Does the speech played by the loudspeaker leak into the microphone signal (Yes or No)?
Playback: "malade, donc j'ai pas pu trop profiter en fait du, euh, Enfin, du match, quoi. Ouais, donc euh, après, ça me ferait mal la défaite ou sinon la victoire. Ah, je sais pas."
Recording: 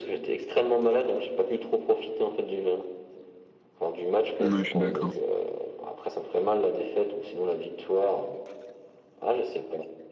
Yes